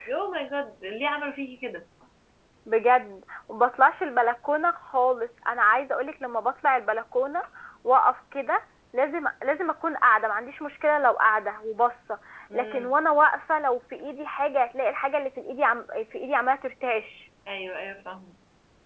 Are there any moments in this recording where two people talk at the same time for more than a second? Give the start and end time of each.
none

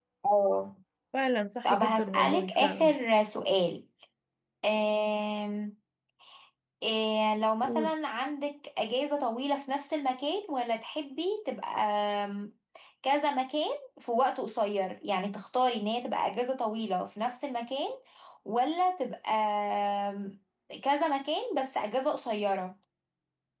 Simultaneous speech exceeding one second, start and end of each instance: 1.6-2.9

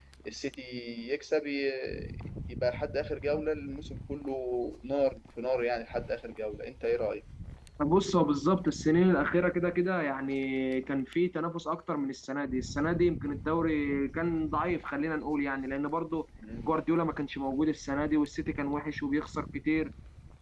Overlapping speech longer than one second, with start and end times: none

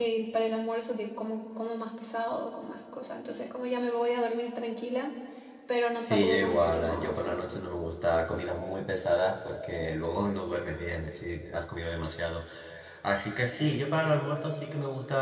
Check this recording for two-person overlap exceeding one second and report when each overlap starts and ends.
6.0-7.4

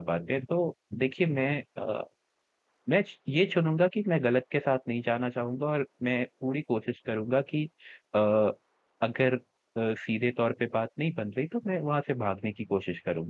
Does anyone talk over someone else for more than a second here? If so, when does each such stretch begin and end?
none

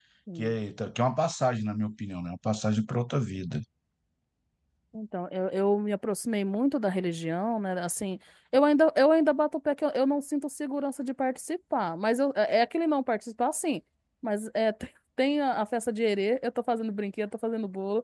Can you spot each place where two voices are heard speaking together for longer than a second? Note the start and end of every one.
none

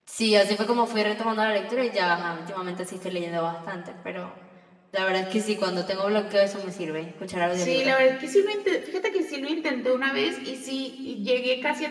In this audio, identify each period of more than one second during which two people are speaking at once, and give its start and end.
none

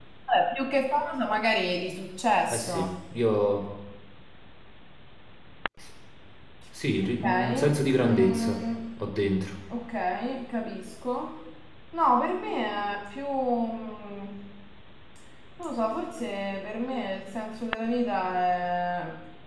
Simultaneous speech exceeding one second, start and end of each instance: 7.2-8.6

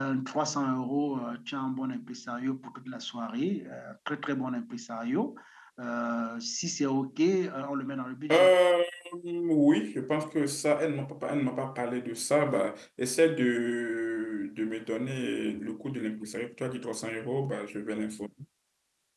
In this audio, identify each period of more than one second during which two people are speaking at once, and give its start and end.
none

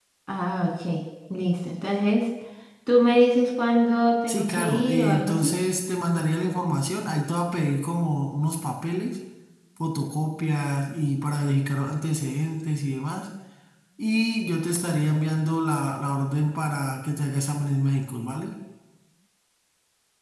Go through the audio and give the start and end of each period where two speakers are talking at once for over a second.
4.3-5.5

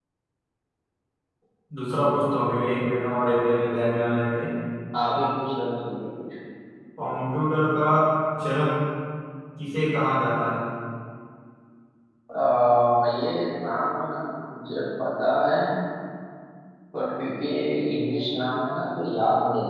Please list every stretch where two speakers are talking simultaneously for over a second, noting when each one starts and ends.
none

